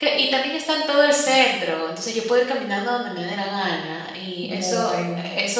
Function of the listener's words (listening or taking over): listening